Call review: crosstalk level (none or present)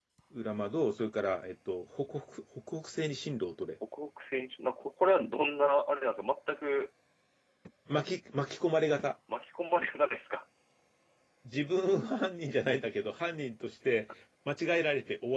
none